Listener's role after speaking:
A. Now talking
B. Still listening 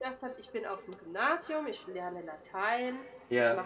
B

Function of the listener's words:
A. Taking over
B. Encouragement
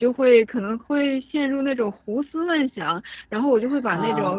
B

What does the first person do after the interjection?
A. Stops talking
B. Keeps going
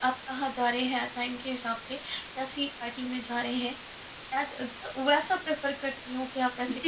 A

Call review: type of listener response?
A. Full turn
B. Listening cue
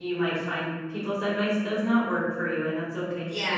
A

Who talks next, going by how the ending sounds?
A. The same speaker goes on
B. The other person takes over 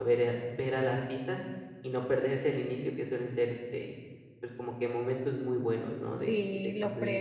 B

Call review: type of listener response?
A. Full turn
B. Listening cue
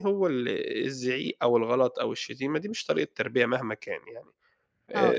A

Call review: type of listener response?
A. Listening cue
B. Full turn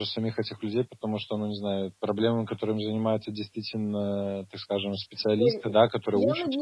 B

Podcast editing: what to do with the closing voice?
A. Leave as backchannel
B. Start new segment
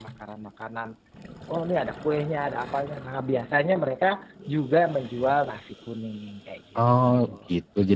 B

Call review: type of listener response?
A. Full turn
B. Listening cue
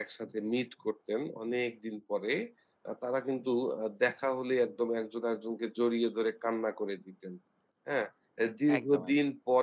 B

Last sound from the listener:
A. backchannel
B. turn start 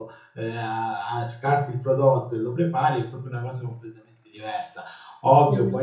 A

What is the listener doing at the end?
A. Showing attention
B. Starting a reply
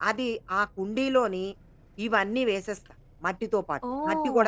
B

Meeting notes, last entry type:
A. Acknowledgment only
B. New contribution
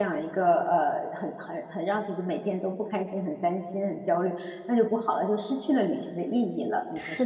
B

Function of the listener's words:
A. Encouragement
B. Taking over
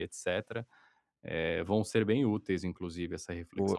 A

